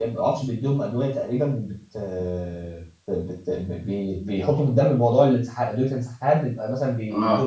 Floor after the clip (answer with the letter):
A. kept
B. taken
A